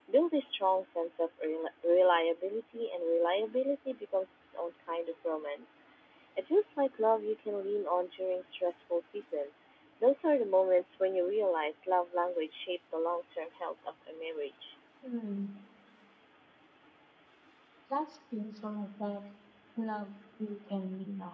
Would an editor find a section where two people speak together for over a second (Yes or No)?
No